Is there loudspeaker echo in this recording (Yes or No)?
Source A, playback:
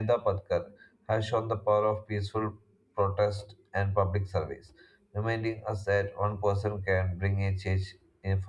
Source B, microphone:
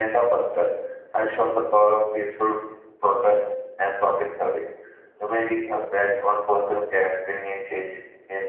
Yes